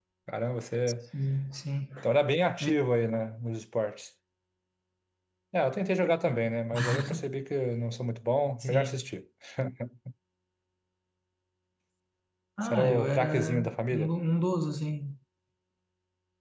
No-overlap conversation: No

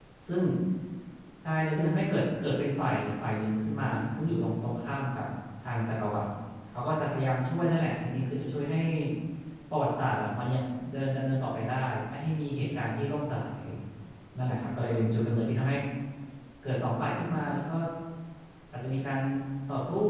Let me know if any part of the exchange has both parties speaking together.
No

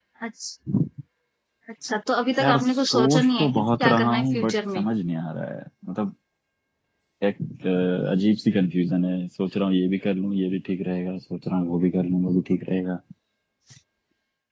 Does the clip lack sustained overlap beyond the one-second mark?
No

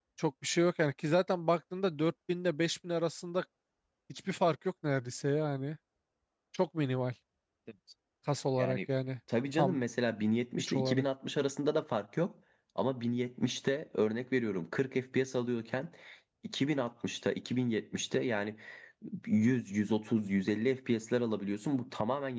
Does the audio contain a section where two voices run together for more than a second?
No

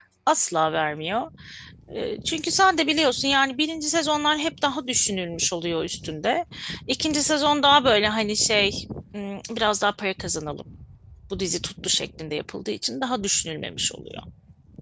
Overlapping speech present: No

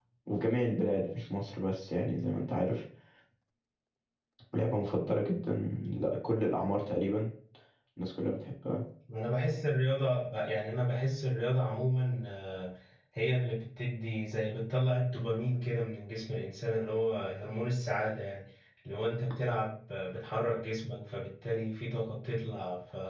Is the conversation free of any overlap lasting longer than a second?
Yes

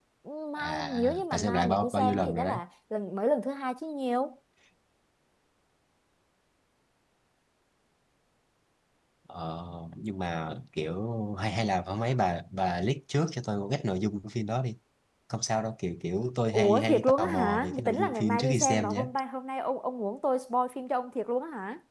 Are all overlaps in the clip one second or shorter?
No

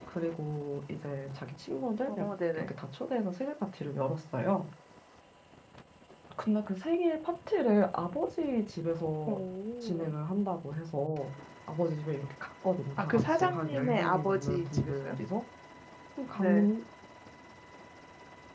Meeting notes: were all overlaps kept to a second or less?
No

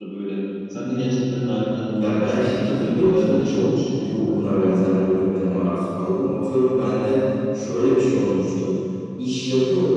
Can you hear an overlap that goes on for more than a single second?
Yes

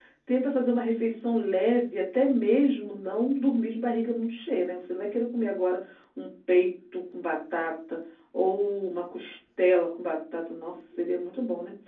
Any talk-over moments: No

